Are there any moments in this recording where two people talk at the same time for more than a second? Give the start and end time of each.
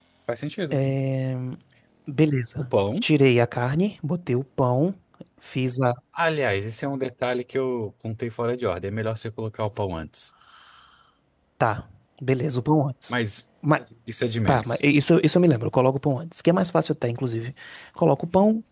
none

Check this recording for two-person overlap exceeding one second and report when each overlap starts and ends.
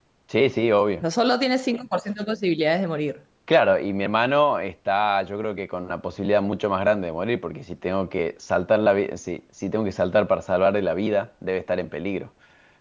none

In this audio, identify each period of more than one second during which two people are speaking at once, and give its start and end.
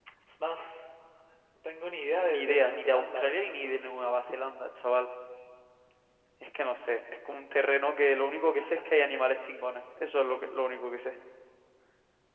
2.1-3.9

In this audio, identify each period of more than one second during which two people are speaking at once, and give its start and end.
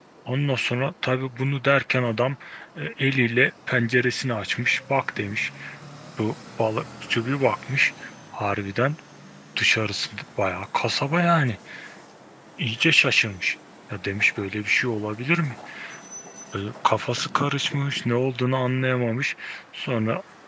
none

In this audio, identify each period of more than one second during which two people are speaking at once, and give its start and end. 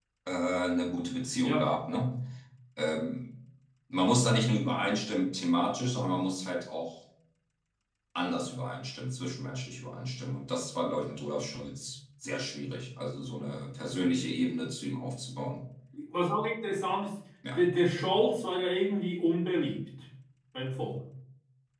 none

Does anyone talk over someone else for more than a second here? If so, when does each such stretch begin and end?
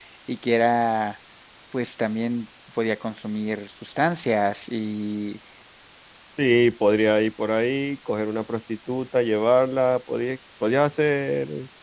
none

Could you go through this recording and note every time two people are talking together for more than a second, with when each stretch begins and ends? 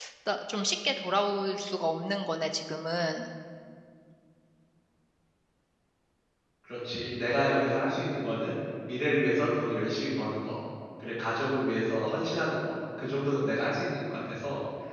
none

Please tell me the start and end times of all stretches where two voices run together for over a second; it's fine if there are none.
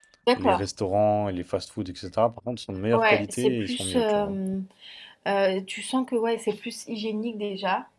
2.9-4.4

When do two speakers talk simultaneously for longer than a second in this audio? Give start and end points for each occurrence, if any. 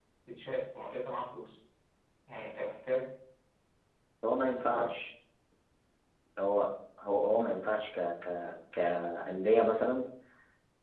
none

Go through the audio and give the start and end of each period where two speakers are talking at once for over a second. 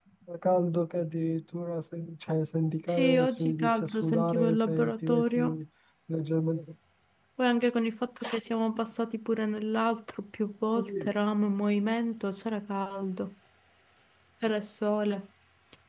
2.9-5.6

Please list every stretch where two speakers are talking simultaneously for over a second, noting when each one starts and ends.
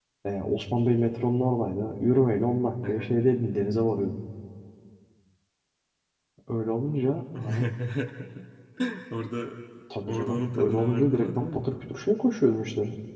10.1-11.7

